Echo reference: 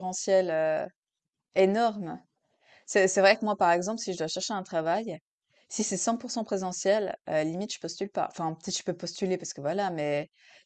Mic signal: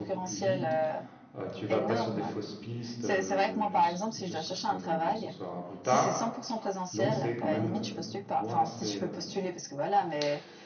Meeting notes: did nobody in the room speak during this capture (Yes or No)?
No